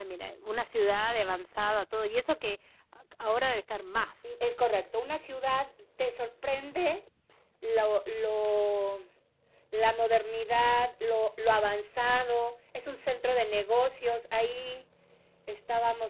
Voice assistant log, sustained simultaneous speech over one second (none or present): none